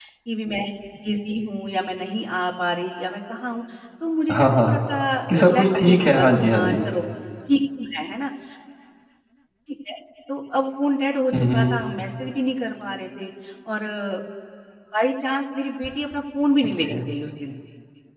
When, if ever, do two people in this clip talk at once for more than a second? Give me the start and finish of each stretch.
5.4-6.7

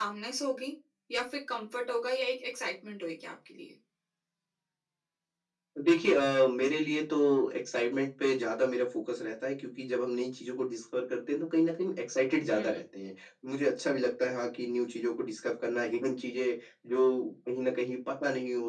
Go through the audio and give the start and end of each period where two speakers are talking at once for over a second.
none

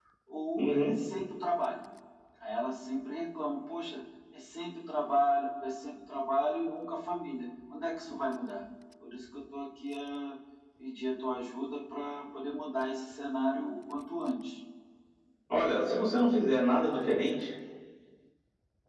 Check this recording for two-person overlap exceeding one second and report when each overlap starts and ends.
none

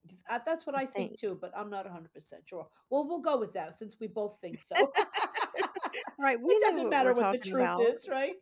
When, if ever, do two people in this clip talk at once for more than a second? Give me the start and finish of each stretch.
6.5-7.9

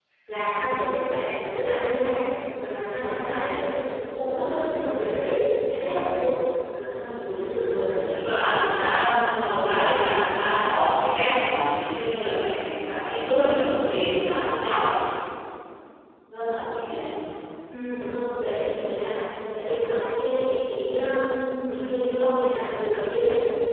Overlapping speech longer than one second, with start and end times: none

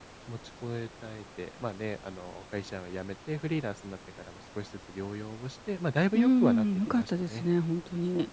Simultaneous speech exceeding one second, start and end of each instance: 6.1-7.4

